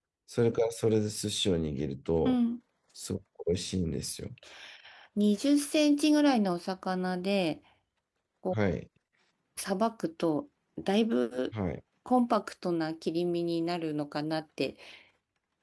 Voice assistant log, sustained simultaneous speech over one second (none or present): none